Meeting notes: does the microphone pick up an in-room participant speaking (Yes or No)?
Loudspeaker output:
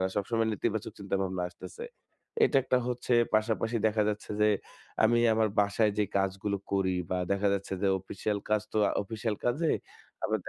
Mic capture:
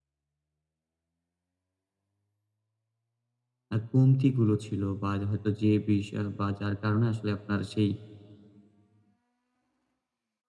Yes